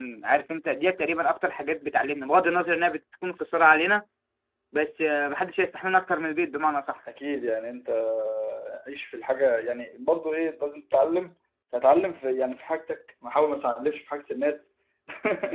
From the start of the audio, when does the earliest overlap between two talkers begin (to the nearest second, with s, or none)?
none